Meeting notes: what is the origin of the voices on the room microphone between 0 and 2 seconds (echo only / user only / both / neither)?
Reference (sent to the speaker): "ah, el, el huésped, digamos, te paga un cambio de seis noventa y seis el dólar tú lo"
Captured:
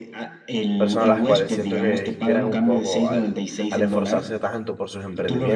both